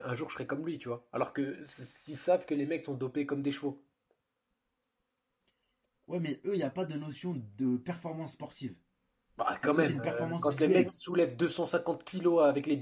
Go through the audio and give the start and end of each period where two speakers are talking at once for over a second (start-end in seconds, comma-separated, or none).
9.6-10.9